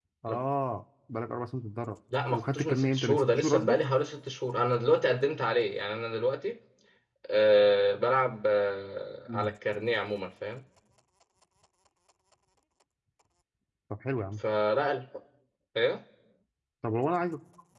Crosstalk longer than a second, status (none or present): present